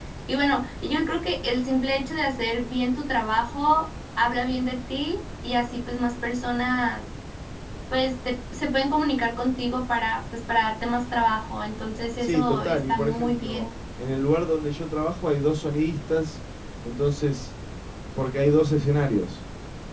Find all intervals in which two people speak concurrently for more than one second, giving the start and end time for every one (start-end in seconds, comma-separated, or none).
12.2-13.7